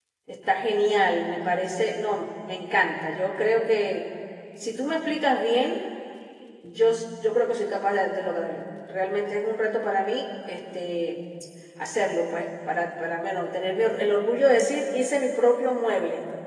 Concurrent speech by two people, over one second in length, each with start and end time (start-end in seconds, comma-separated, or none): none